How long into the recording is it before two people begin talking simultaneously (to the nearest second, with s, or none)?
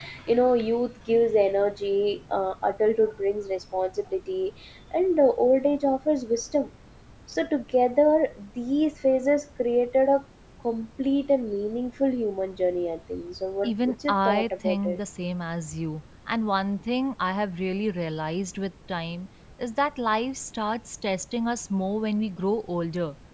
14 s